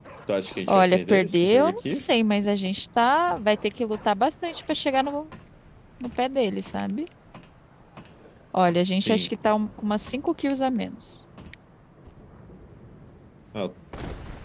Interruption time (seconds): 1 s

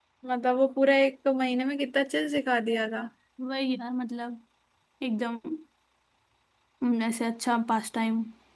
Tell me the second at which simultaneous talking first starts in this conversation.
none

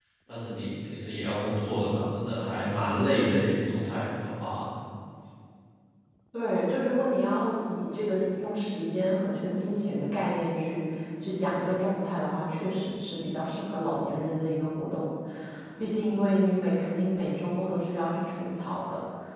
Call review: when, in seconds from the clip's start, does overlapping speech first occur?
none

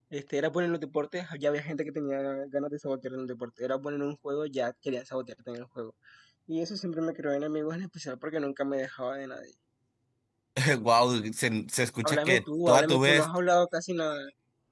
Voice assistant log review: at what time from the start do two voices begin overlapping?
12 s

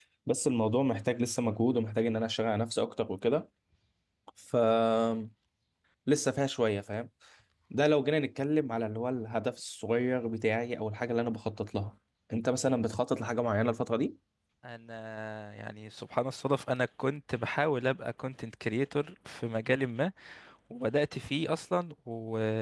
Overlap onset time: none

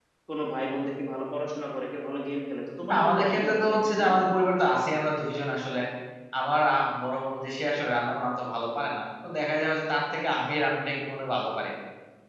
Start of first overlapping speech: 3 s

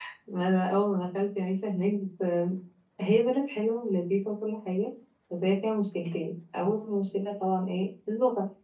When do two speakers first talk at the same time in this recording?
none

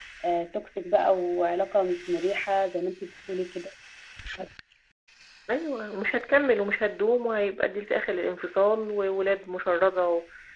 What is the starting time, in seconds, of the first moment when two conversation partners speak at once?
none

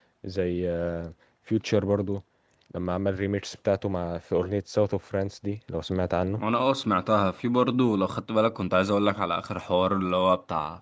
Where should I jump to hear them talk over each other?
none

